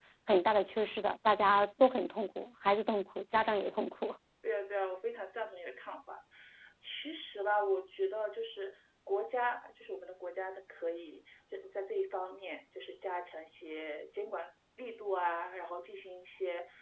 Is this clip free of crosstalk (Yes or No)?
Yes